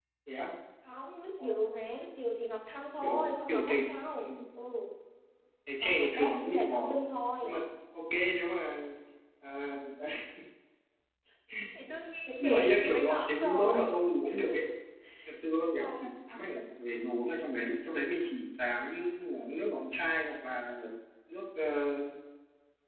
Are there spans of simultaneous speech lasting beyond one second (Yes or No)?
Yes